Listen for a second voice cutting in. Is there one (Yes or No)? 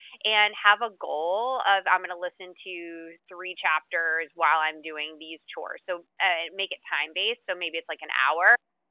No